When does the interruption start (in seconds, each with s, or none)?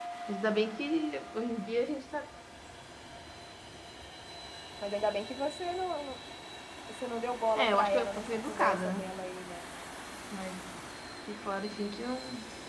7.6 s